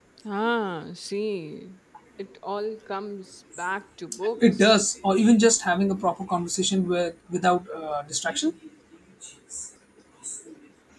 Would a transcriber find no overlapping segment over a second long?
Yes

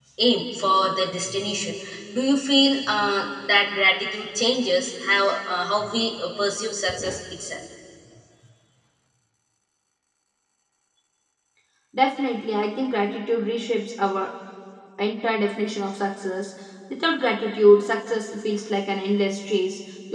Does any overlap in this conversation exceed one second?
No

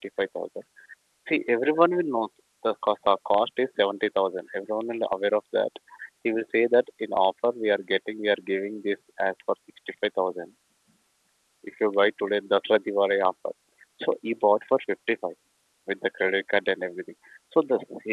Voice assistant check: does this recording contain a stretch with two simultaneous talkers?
No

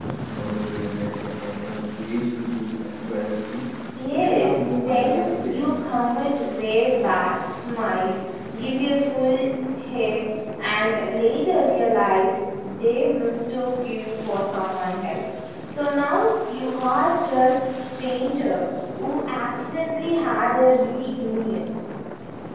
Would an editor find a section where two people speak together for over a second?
Yes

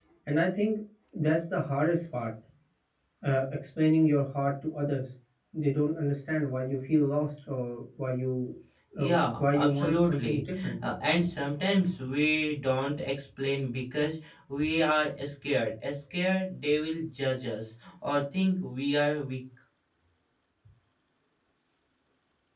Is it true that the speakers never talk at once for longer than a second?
No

